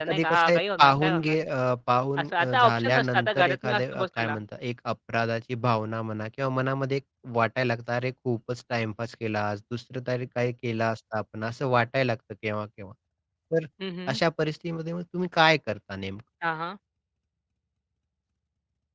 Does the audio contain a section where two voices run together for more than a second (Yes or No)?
Yes